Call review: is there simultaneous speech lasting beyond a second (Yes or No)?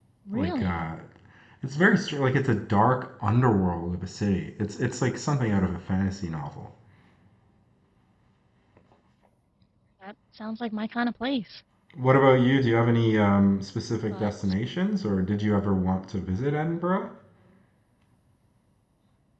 No